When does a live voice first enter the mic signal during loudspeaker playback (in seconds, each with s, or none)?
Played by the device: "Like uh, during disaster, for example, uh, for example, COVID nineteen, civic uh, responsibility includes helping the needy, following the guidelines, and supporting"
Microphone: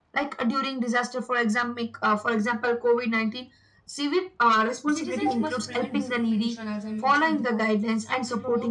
4.9 s